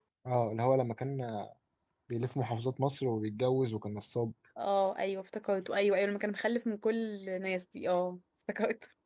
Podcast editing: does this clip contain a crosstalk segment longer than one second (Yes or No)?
No